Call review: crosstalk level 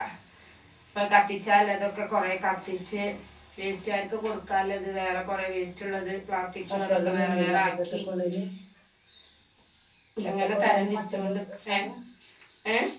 present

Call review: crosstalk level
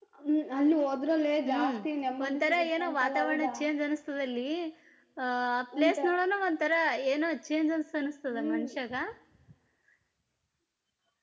present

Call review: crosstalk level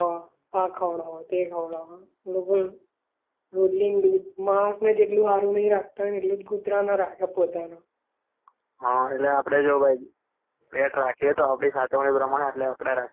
none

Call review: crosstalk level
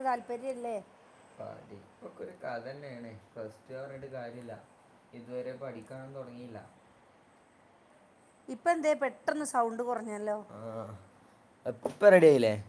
none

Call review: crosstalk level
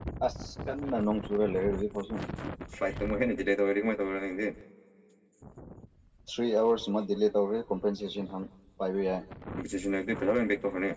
none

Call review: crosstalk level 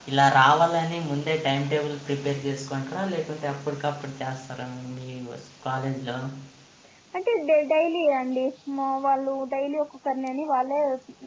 none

